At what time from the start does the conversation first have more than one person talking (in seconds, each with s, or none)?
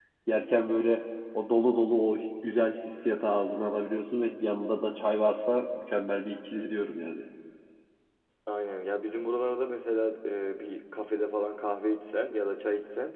none